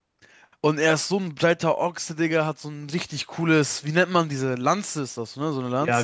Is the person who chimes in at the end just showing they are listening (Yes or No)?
No